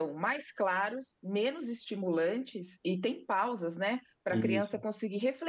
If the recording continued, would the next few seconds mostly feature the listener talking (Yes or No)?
No